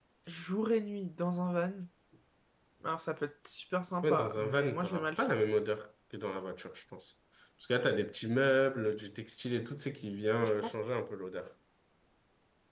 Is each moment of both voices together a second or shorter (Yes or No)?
No